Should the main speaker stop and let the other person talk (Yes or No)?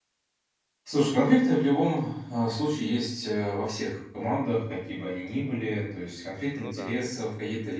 No